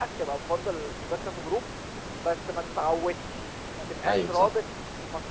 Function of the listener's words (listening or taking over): listening